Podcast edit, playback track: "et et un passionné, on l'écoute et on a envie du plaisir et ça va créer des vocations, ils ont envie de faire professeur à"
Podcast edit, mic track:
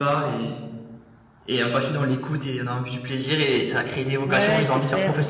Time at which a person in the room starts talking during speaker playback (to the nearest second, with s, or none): 4 s